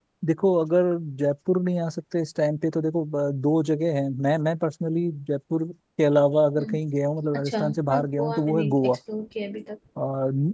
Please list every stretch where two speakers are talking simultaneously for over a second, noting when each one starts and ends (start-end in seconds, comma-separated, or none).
7.3-9.0